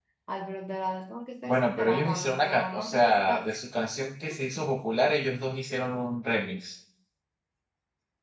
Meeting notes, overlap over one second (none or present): present